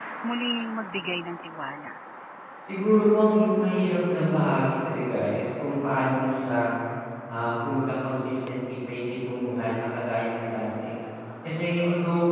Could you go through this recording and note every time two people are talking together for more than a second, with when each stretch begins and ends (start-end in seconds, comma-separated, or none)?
none